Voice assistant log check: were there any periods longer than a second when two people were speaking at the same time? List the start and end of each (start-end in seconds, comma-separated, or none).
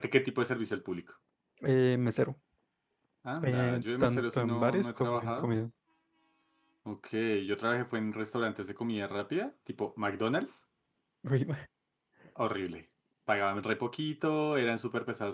3.4-5.5